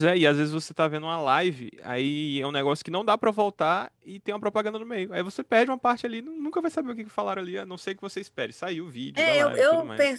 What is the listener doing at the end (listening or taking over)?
taking over